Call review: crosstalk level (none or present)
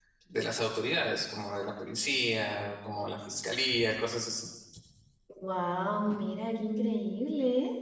none